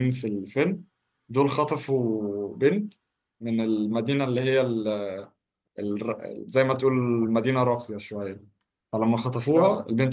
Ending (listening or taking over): listening